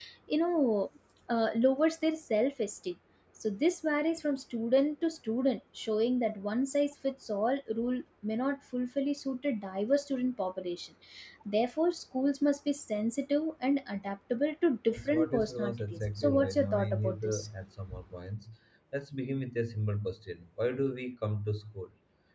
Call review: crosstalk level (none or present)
present